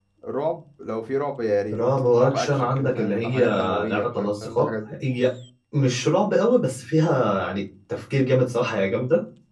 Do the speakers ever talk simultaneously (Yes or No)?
Yes